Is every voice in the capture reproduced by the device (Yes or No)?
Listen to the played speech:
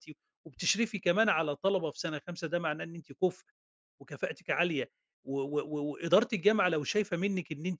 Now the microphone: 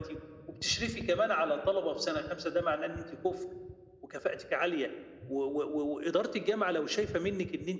Yes